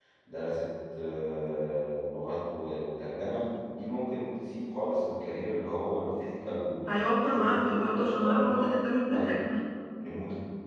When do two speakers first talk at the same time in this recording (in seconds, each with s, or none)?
6.9 s